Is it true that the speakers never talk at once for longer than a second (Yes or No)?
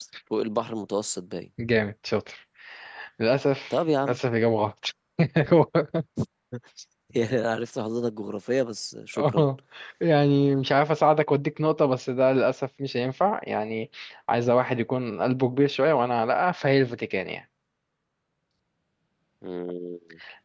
Yes